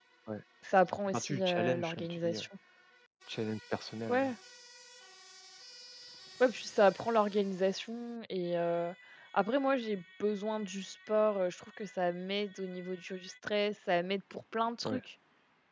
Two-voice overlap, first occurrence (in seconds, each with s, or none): 1.1 s